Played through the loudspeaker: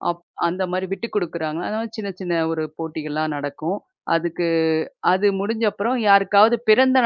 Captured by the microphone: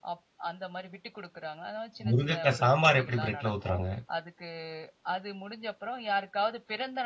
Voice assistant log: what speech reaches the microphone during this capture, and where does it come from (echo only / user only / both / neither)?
both